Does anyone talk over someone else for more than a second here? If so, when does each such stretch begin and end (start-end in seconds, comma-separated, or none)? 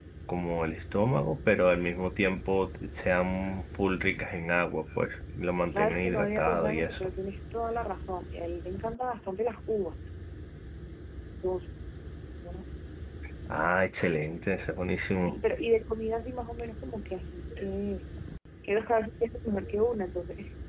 5.7-7.1